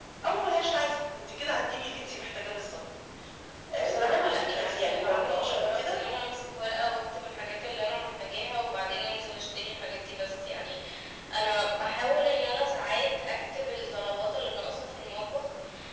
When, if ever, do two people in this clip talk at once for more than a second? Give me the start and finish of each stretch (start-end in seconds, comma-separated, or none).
3.8-6.0